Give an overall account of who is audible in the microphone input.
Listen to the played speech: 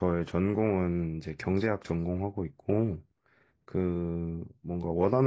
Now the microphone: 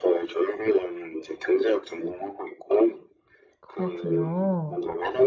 both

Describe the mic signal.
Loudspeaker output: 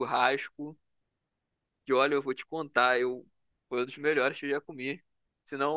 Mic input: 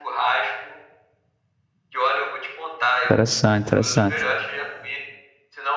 both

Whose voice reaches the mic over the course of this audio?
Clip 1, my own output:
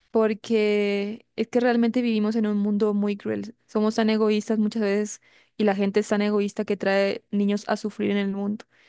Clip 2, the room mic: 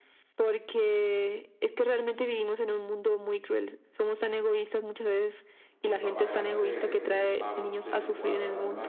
both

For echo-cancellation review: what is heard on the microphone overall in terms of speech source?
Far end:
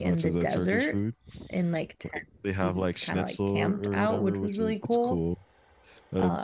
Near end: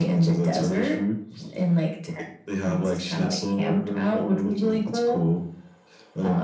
echo only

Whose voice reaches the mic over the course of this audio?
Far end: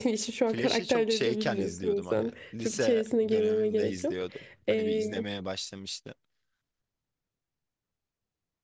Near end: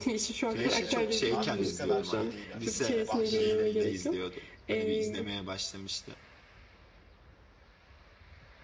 both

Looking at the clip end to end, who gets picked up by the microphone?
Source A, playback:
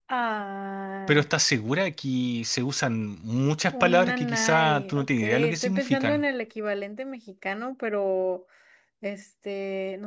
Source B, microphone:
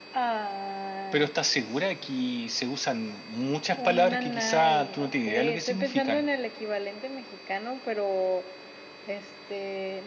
echo only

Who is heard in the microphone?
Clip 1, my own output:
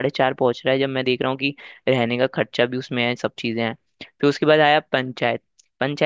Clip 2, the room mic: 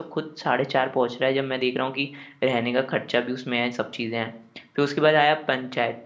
echo only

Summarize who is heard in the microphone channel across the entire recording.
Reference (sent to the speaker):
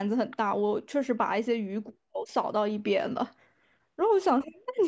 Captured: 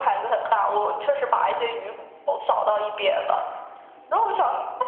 echo only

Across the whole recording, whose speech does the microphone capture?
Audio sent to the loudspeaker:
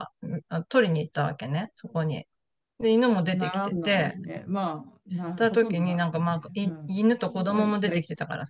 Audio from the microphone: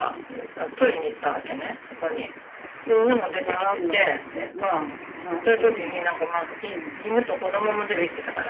echo only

